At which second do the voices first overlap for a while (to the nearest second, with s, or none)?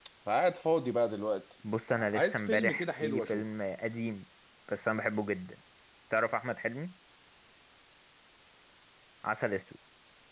2 s